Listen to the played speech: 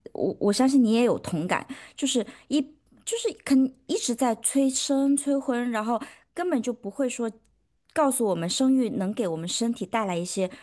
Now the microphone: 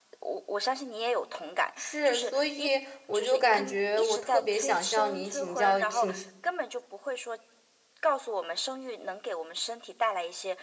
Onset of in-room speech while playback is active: 1.8 s

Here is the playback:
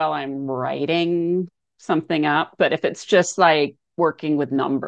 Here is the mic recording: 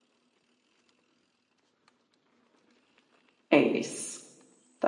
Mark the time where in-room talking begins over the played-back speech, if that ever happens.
3.5 s

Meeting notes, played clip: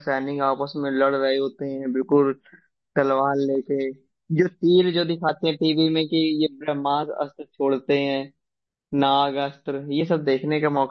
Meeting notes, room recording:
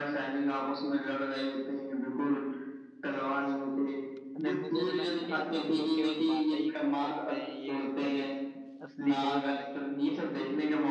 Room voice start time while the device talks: 4.3 s

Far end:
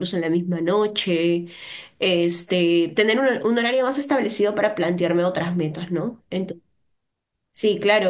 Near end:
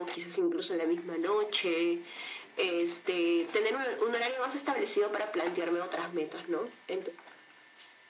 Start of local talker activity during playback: none

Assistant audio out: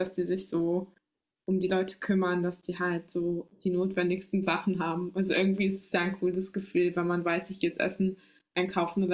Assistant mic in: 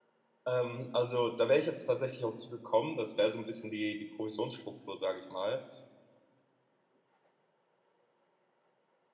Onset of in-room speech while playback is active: 0.5 s

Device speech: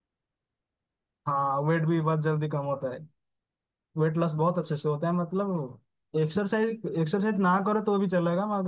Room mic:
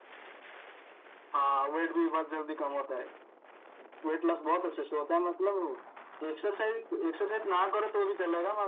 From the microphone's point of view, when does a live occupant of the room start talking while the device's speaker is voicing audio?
none

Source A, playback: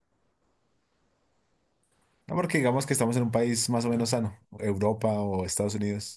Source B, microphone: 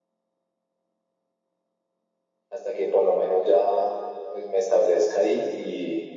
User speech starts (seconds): 2.5 s

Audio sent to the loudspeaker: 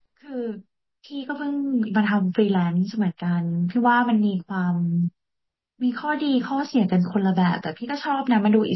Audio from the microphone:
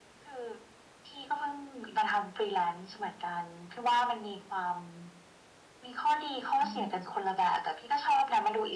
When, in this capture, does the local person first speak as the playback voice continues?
6.6 s

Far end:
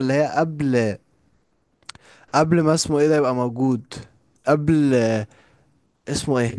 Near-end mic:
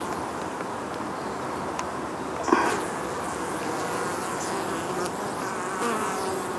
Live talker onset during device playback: none

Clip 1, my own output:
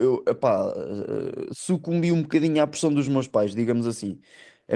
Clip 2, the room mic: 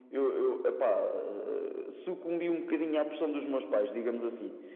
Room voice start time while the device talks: none

